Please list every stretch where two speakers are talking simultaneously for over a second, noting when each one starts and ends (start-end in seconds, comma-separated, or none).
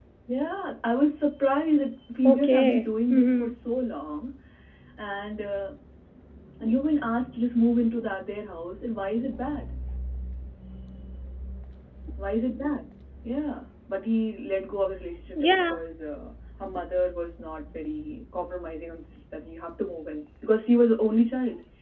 2.2-3.5